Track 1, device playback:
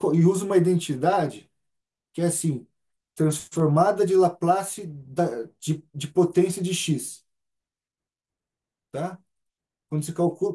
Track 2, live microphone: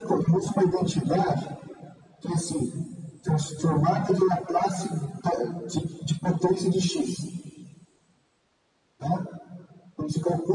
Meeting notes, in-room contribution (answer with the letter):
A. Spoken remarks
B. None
B